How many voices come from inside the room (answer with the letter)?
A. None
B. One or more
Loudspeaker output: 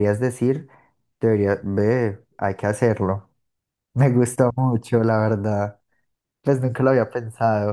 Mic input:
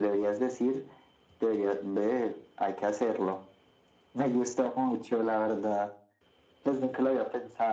A